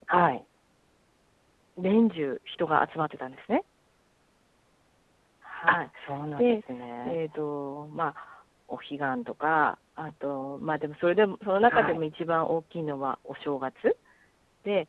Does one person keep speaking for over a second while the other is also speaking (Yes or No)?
No